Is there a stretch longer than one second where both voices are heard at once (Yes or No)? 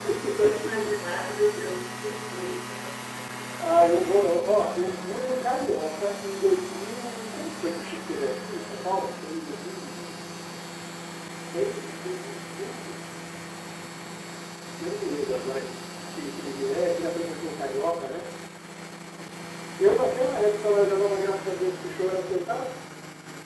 No